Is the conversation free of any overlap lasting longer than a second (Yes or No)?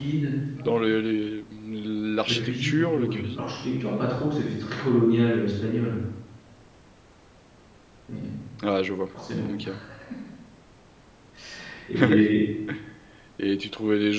No